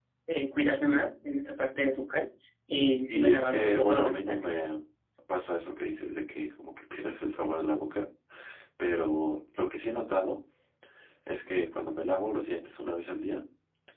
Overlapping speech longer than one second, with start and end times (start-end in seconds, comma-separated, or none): 3.0-4.5